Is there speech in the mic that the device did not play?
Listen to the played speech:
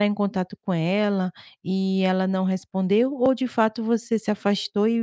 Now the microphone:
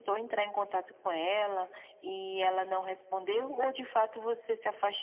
No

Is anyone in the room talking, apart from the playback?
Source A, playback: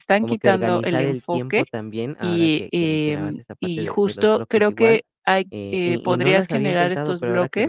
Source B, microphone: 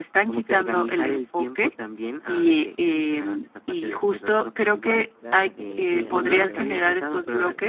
Yes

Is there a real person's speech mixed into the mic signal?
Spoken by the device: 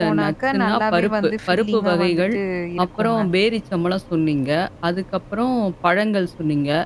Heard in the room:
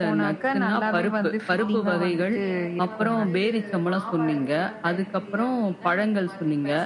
Yes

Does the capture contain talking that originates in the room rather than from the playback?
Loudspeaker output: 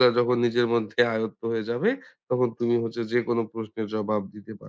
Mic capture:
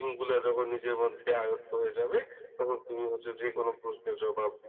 No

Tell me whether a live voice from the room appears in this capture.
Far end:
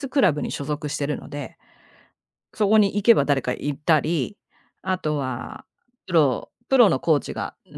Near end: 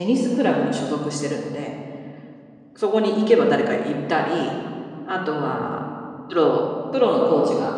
No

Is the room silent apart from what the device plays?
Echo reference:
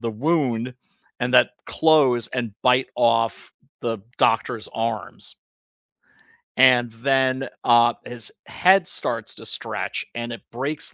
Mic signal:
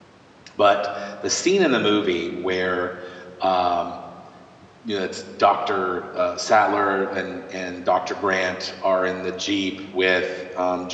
No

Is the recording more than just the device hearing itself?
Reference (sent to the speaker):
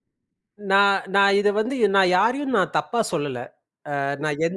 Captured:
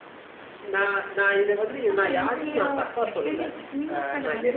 Yes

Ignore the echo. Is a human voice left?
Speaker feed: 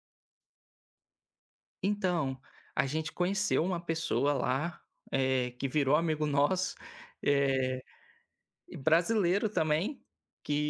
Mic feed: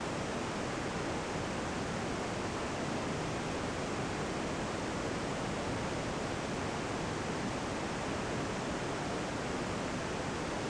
No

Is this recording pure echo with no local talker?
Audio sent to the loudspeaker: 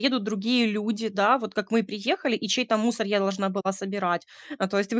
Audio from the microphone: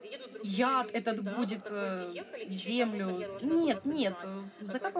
No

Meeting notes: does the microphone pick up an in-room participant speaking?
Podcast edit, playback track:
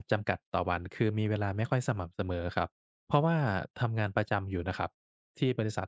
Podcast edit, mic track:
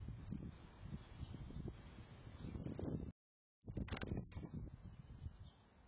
No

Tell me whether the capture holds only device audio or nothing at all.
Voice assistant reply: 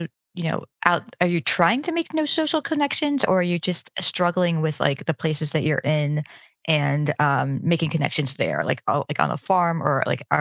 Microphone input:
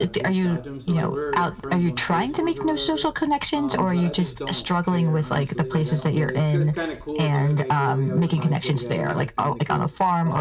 No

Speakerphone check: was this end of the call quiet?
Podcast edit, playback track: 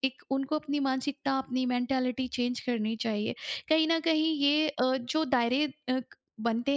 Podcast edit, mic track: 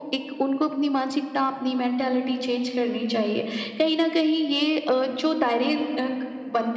Yes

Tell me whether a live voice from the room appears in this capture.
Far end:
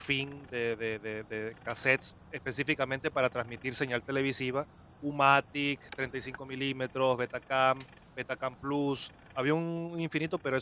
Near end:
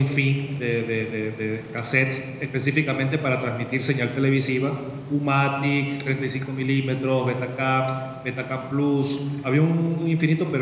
No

